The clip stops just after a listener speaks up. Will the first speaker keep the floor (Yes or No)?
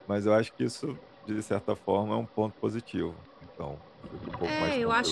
No